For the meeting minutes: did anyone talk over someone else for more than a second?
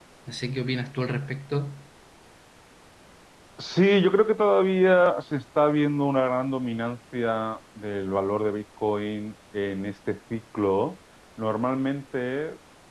No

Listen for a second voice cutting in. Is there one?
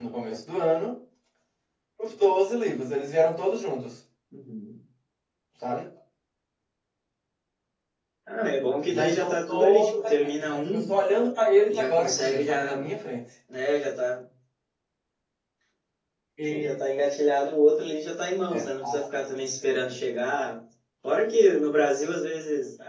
Yes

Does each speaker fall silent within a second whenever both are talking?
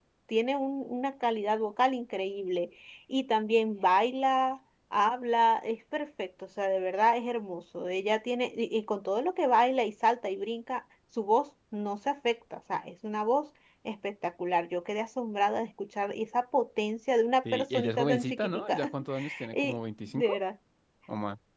No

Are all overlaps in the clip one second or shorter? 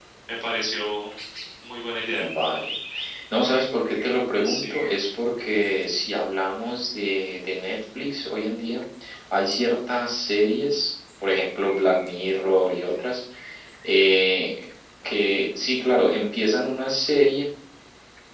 Yes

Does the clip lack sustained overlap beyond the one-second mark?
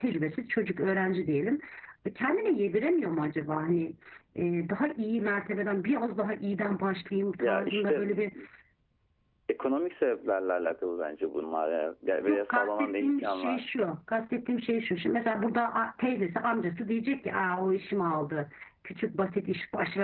No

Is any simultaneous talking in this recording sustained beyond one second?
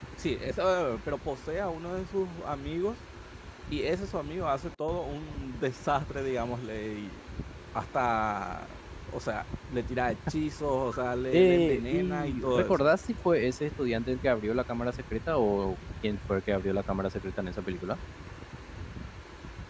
Yes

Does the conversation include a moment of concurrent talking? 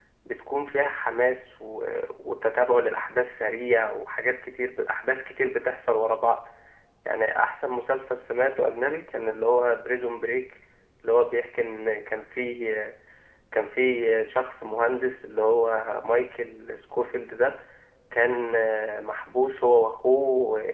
No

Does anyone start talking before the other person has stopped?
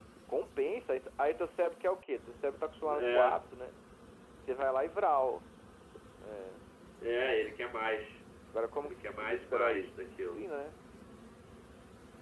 Yes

